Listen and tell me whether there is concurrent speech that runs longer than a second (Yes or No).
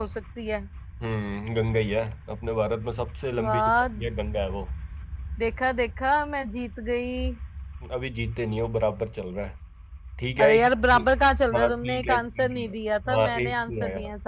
Yes